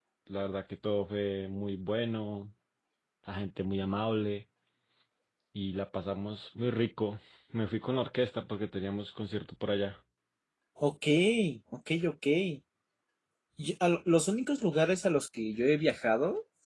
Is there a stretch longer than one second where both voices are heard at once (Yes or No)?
No